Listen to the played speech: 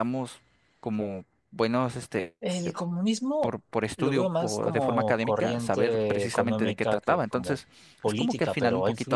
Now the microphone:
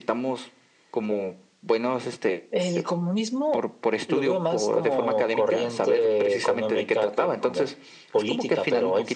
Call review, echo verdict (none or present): present